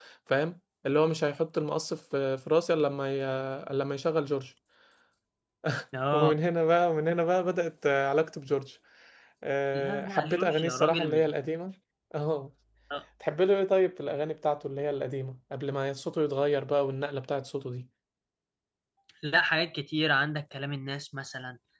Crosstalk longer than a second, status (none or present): present